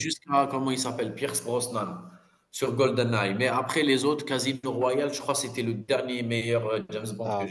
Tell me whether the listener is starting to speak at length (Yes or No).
Yes